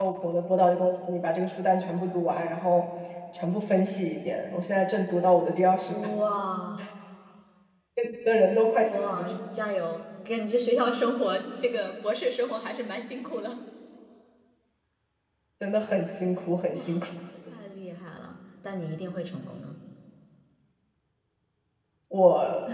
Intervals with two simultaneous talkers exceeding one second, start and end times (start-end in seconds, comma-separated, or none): none